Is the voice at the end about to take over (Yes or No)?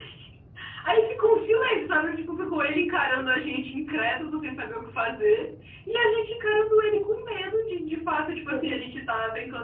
No